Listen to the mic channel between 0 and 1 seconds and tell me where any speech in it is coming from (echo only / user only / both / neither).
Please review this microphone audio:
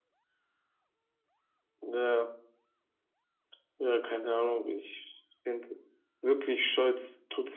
neither